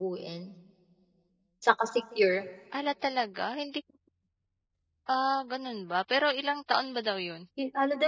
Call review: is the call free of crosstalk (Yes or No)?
Yes